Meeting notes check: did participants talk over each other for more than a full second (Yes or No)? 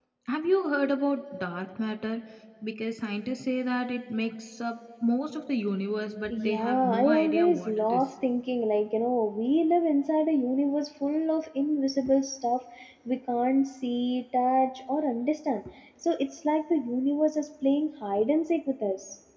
Yes